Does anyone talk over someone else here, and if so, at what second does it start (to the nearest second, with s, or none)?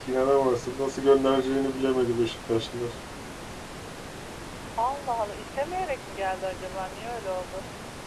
none